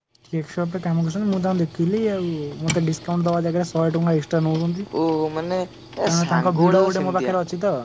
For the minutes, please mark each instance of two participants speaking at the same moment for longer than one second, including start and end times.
6.1-7.3

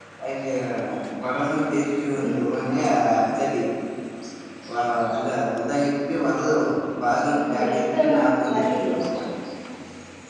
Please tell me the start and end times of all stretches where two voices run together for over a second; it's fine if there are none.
7.3-8.9

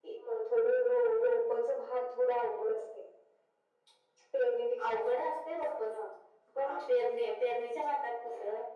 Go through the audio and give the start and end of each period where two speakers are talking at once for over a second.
none

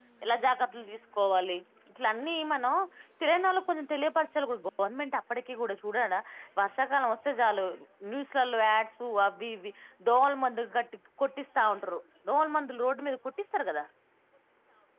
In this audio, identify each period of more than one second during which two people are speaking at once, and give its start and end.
none

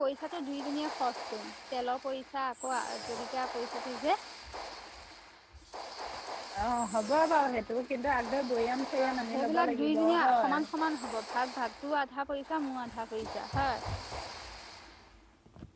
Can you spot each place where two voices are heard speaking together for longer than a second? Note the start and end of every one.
9.0-10.5

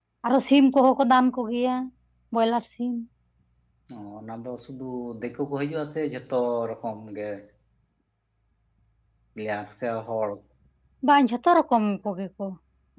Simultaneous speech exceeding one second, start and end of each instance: none

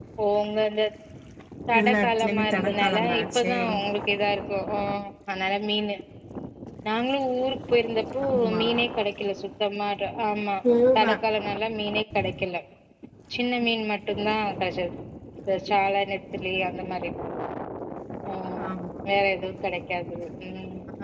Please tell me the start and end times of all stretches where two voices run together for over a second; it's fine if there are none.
1.8-3.5

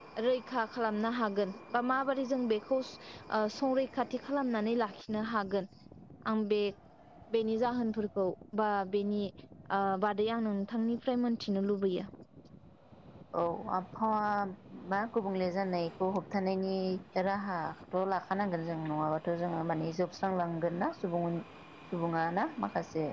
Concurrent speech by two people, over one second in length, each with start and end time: none

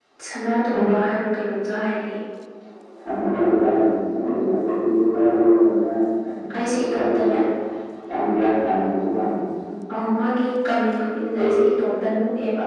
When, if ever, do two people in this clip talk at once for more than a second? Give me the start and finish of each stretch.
none

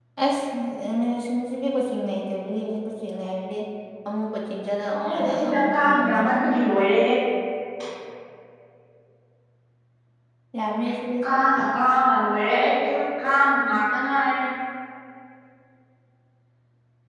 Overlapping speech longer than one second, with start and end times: 5.0-6.4

